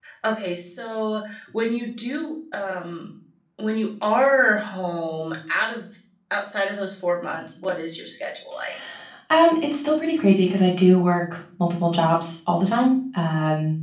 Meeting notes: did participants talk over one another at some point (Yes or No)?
No